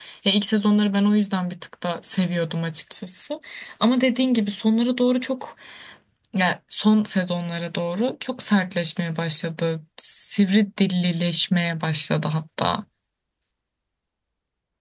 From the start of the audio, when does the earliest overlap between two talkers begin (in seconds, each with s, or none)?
none